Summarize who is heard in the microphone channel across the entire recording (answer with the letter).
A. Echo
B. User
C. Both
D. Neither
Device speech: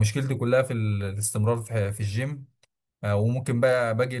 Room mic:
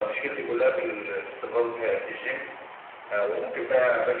A